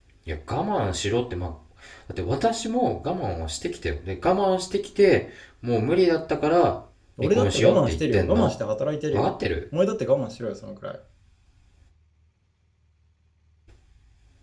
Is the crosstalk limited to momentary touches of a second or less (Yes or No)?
No